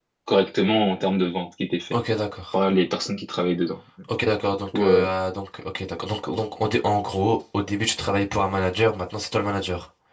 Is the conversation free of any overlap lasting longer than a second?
Yes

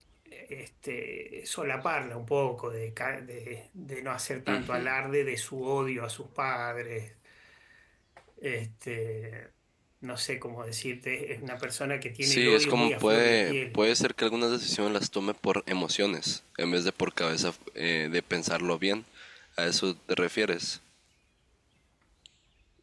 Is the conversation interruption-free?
No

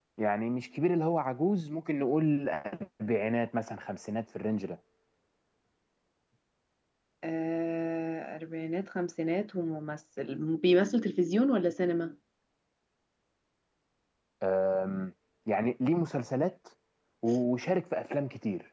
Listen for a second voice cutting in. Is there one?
No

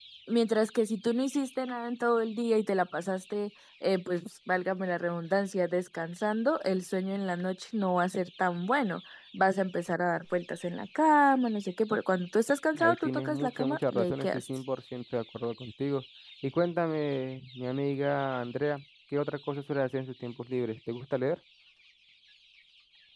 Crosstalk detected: Yes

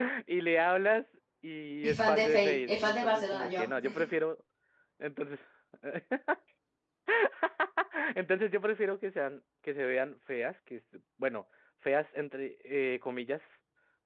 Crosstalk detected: Yes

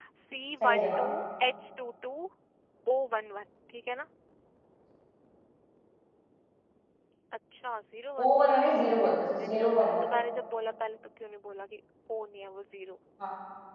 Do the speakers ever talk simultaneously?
Yes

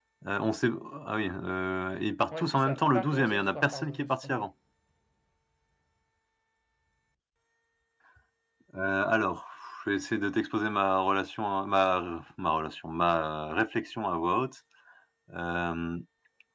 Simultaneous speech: Yes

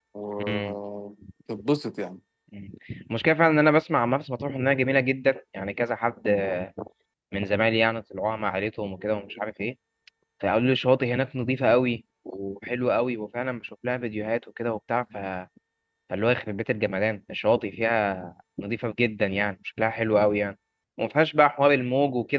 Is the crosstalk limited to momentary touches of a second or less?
Yes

